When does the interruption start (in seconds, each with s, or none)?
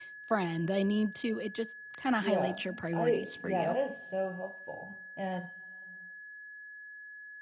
2.2 s